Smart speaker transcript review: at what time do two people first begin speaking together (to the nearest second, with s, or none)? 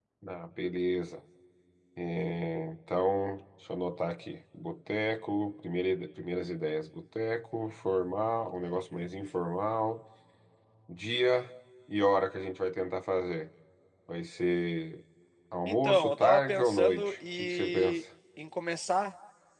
16 s